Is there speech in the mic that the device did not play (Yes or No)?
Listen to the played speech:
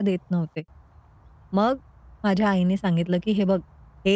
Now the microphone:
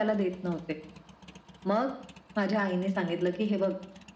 No